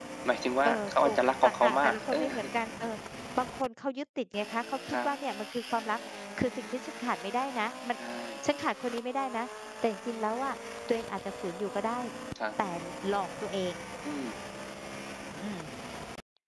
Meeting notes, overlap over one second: present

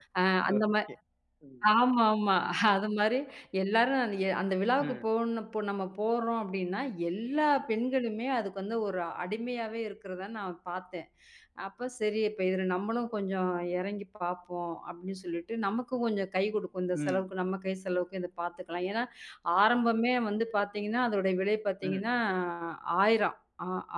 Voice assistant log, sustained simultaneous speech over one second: none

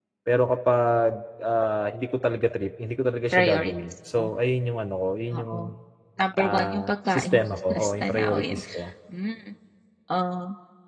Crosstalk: present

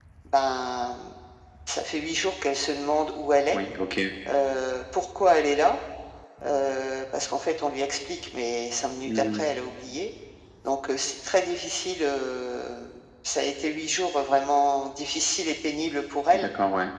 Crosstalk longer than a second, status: none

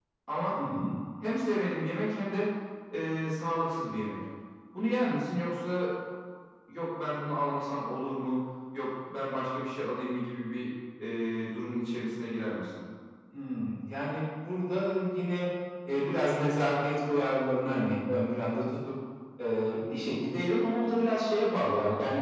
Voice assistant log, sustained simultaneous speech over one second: none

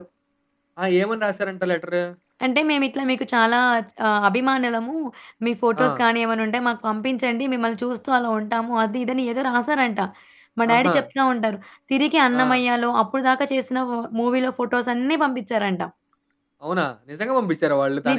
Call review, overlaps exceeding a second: none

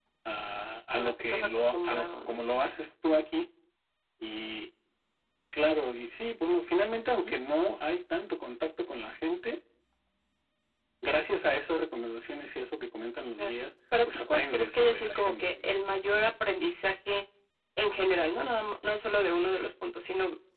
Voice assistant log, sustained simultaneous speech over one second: present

